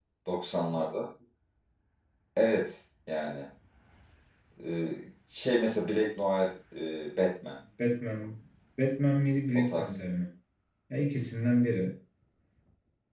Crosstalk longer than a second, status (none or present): none